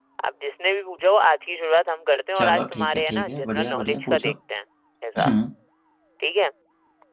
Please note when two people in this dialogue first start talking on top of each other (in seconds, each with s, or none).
2.4 s